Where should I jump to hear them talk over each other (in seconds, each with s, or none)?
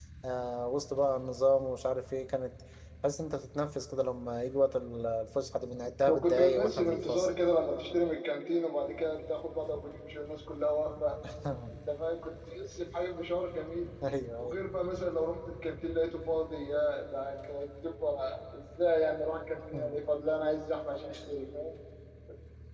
6.1 s